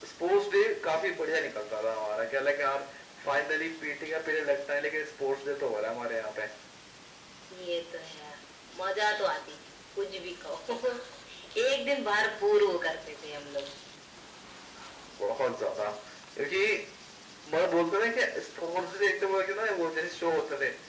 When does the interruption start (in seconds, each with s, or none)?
none